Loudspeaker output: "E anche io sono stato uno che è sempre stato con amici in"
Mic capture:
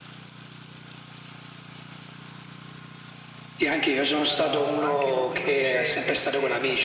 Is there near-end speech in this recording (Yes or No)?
Yes